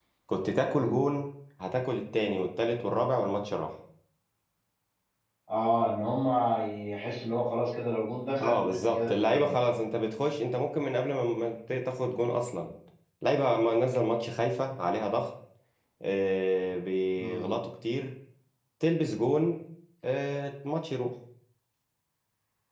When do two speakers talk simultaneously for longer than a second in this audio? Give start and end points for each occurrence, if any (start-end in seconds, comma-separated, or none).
8.4-9.6